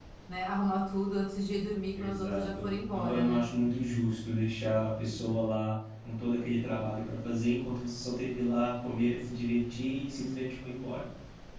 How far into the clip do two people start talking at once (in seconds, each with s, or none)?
1.9 s